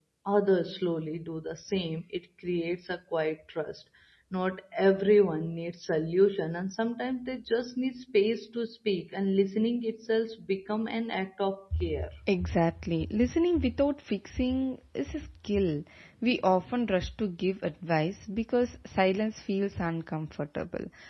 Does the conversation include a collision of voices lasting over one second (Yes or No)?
No